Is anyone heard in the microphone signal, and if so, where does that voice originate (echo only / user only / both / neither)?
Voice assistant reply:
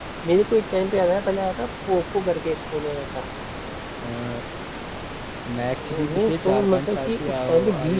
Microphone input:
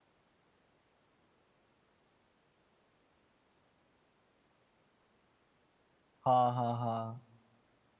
user only